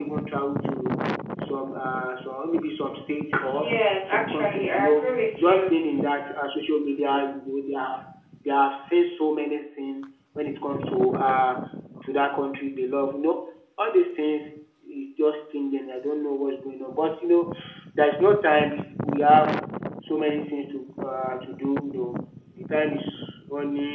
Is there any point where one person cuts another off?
Yes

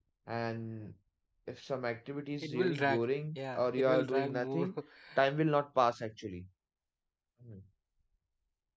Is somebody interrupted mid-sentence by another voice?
Yes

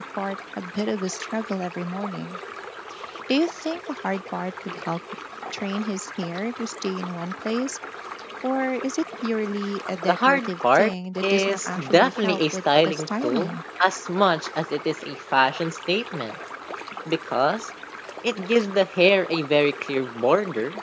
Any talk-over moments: Yes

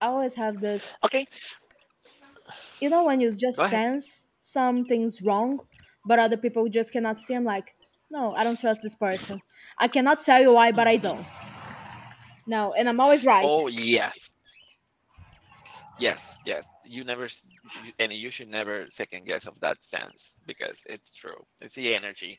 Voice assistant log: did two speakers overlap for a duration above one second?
No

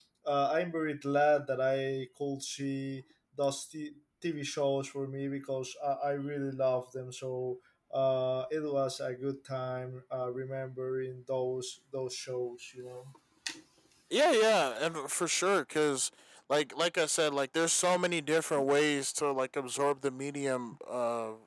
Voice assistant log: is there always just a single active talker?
Yes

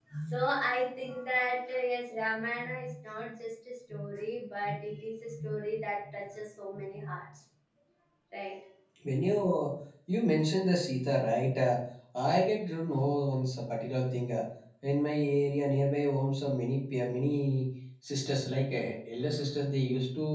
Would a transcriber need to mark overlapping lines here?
No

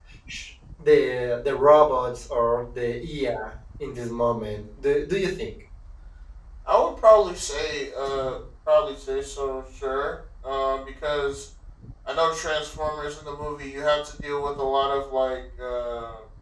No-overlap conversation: Yes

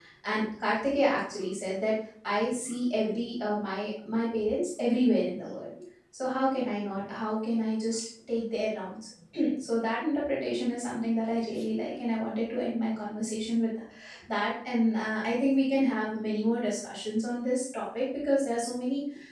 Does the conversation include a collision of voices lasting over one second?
No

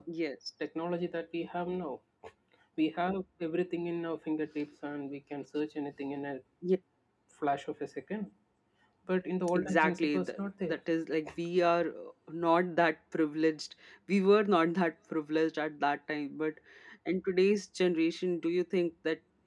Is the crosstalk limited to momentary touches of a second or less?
No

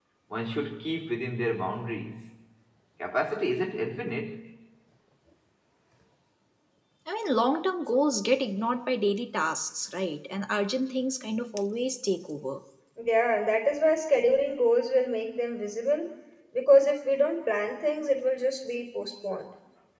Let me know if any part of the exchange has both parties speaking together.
No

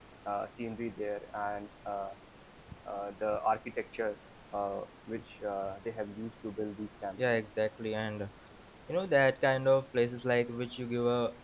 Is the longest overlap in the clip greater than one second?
No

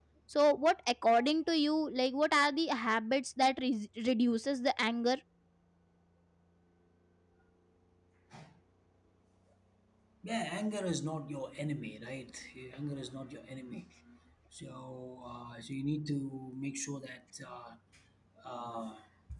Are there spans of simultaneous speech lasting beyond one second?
No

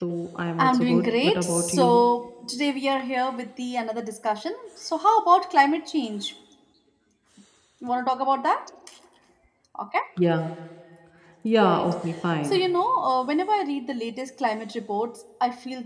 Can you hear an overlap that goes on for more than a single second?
Yes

